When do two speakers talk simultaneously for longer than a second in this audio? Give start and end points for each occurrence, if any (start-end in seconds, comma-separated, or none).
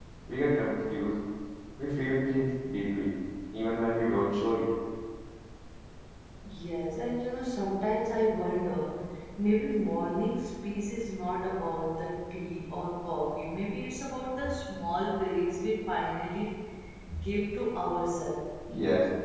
none